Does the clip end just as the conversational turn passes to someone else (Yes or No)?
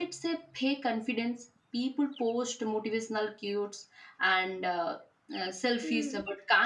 No